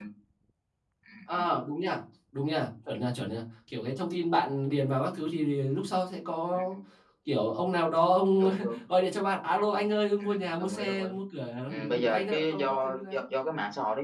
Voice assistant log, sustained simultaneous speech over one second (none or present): present